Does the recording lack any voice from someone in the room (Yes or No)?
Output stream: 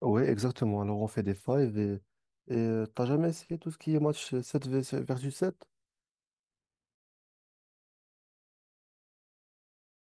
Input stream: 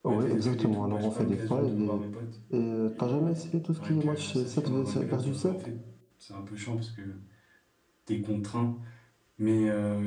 No